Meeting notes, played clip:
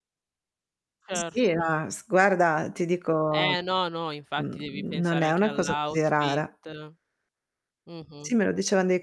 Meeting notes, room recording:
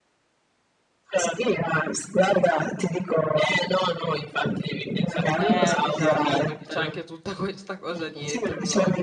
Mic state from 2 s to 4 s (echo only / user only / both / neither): echo only